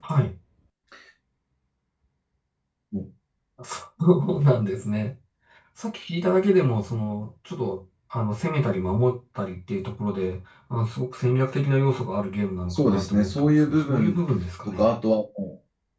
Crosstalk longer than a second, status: present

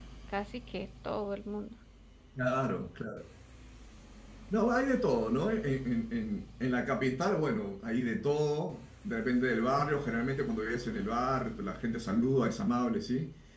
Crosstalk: none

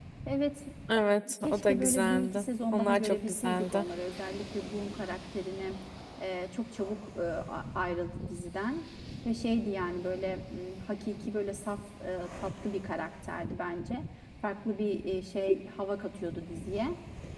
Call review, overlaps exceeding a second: present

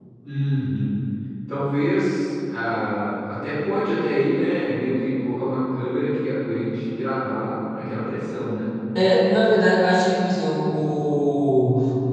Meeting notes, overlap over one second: none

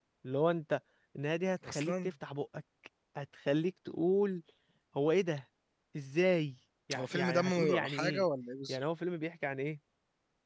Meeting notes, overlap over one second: present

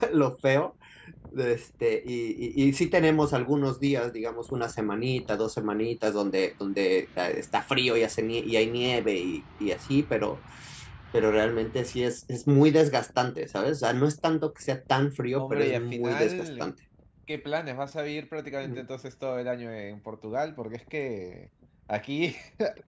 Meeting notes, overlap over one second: present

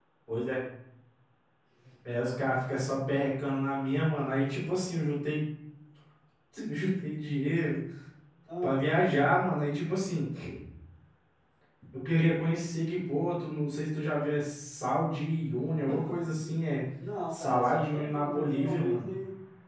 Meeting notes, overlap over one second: present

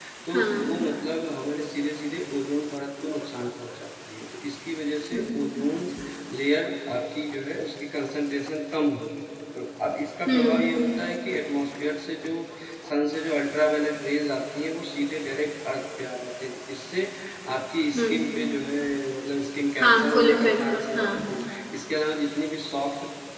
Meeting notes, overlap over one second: present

